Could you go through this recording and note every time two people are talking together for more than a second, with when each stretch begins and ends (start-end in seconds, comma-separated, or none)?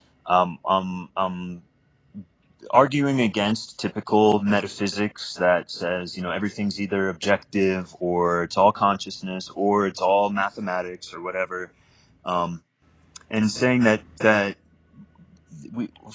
none